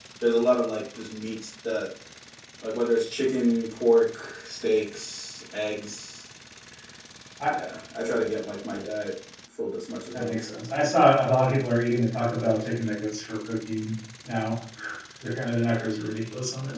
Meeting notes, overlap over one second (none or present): none